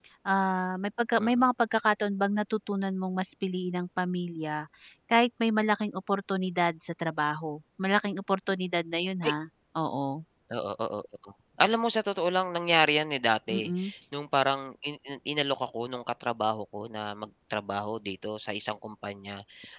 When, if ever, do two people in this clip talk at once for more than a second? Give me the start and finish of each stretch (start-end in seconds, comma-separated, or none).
none